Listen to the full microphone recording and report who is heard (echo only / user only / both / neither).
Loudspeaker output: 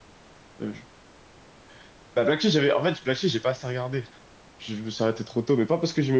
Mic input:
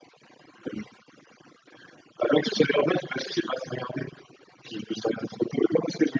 echo only